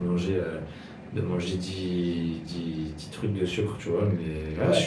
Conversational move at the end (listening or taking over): listening